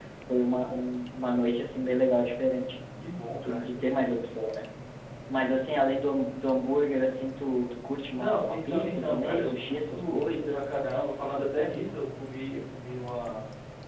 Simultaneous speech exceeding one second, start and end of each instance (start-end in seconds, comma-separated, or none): 8.1-10.6